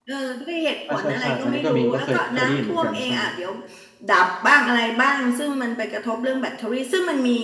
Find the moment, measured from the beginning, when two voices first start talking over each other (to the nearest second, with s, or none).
1 s